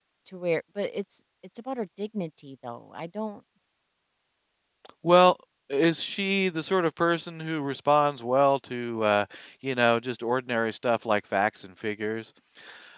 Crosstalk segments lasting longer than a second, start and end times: none

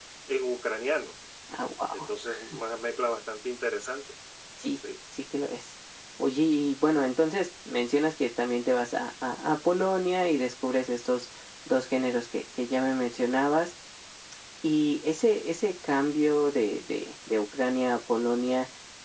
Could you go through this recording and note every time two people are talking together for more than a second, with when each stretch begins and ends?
none

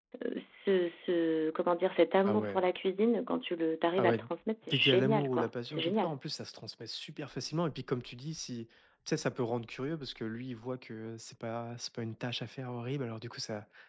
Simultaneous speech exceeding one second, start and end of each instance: 4.7-6.2

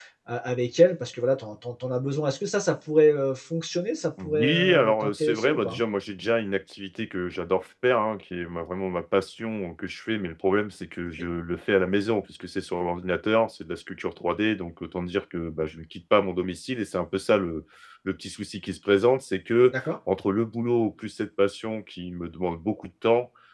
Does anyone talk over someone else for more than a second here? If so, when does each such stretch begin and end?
4.2-5.8

